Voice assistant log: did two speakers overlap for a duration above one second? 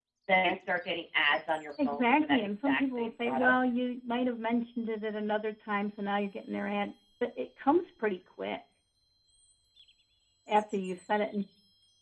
Yes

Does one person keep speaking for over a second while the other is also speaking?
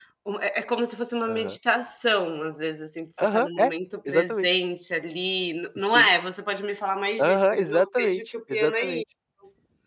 Yes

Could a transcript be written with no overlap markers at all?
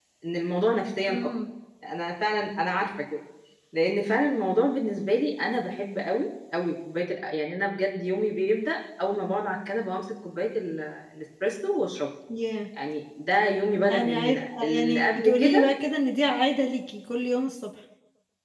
No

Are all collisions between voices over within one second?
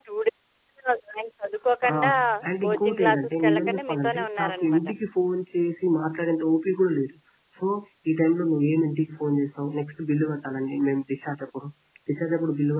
No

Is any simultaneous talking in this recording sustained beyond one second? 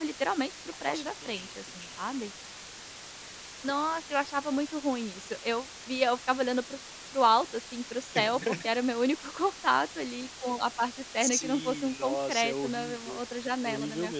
Yes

